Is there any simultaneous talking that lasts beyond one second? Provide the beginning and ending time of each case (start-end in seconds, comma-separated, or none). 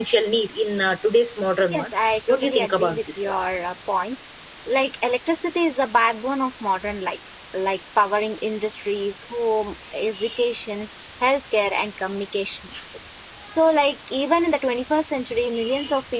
1.7-3.2